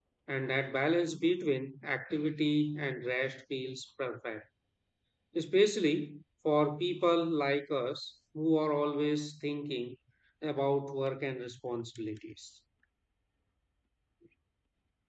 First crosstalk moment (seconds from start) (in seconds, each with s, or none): none